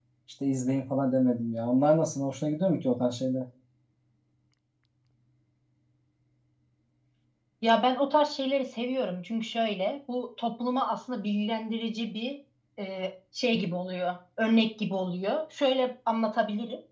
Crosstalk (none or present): none